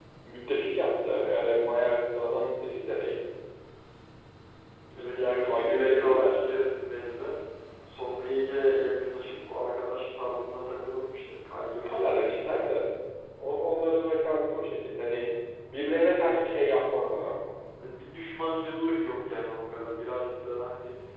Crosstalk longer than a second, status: present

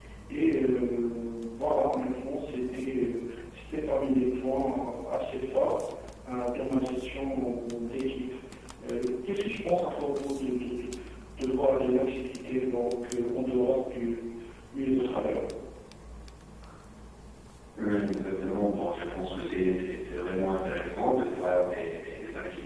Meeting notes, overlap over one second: none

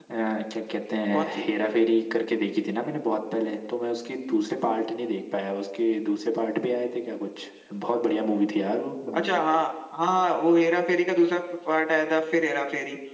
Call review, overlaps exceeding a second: none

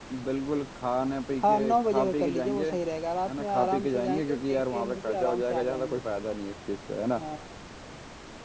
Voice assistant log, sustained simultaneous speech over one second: present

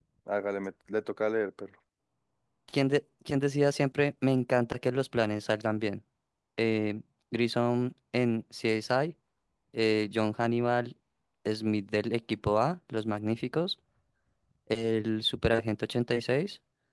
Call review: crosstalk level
none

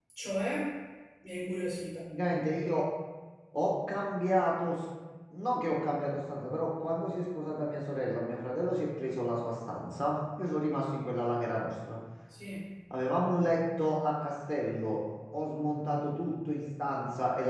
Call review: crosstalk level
none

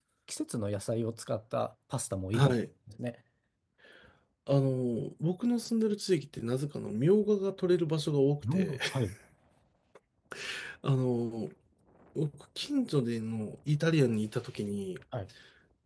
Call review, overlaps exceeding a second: none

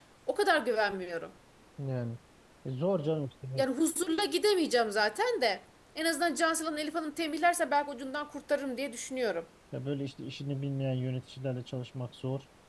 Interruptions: none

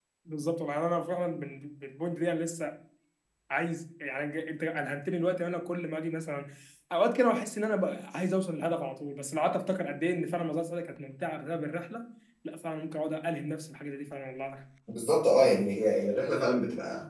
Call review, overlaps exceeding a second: none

